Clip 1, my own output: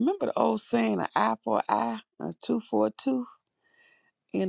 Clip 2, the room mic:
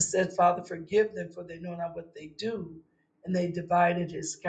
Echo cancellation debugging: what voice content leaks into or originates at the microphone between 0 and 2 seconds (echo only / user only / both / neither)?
user only